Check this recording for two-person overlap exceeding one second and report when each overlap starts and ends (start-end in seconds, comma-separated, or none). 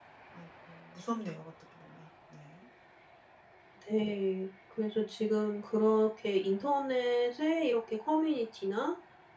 none